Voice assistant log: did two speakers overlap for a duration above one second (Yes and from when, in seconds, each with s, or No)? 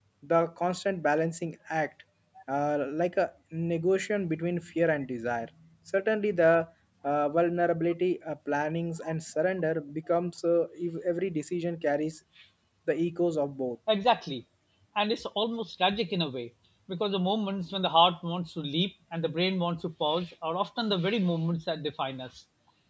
No